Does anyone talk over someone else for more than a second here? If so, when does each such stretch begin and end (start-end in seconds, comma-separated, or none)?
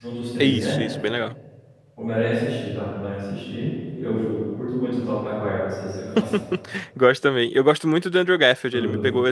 none